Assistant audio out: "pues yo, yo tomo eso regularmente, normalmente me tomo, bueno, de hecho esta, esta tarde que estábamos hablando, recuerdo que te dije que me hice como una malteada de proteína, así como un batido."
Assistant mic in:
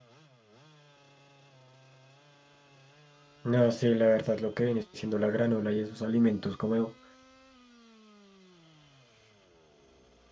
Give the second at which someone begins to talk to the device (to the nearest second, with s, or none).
3 s